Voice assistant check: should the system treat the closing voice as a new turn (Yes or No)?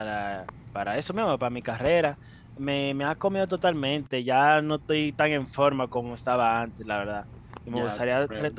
Yes